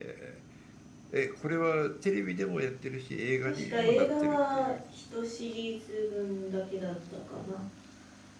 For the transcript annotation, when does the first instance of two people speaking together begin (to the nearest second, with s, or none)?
3 s